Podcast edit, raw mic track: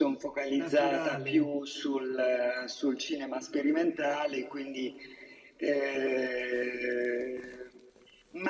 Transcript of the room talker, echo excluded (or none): naturale.